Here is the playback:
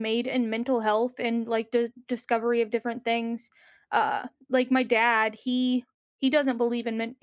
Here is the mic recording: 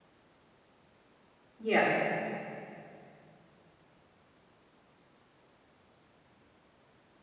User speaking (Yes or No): Yes